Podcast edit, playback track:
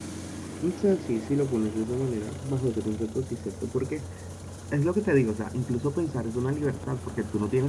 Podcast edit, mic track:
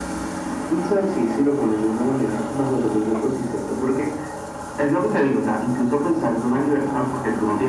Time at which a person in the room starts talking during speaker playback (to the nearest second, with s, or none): none